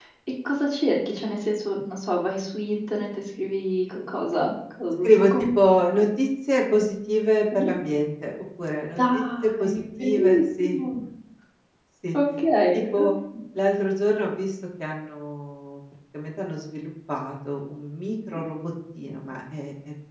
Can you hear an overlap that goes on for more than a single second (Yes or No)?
Yes